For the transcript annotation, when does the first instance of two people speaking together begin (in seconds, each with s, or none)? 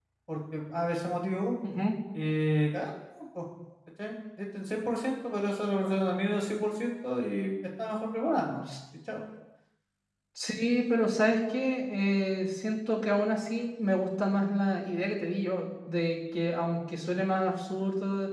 none